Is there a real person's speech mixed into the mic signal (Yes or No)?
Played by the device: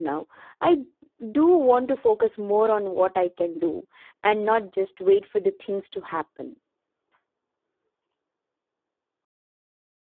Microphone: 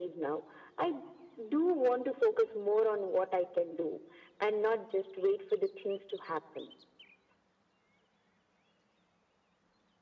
No